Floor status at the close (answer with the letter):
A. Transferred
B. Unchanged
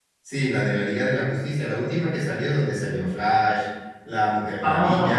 A